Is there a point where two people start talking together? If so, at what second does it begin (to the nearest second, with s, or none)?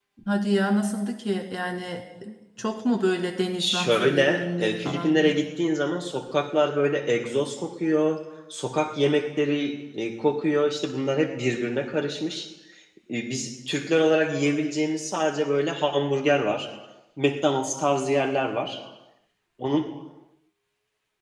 4 s